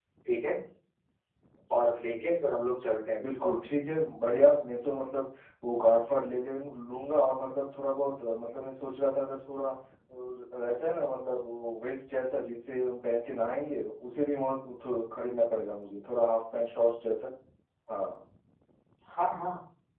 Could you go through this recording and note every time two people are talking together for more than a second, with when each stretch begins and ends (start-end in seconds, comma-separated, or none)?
none